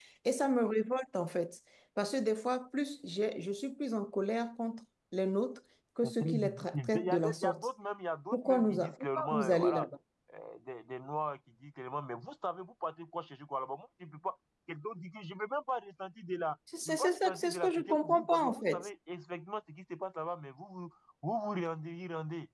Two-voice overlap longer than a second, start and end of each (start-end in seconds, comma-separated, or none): 6.0-7.7, 8.3-9.9, 16.9-18.9